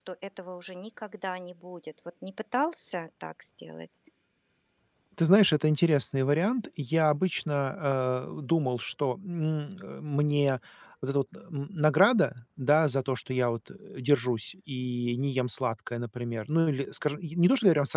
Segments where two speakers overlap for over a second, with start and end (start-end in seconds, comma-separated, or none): none